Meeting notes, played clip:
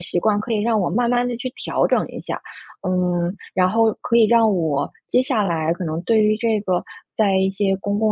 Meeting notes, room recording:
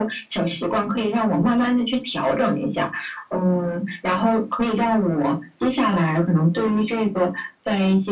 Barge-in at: none

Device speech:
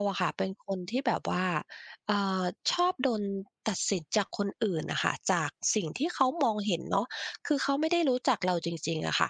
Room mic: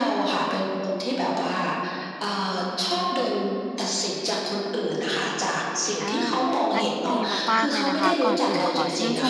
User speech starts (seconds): 6 s

